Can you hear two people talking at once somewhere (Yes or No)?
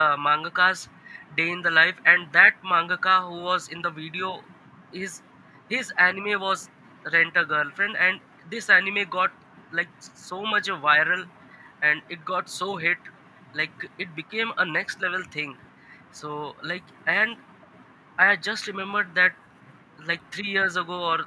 No